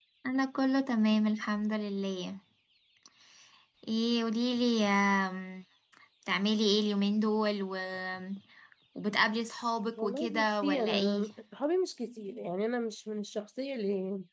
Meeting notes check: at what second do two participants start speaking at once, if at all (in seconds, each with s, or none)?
10.0 s